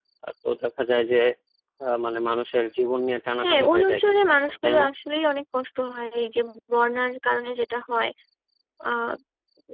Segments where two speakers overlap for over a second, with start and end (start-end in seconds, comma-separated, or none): 3.4-4.8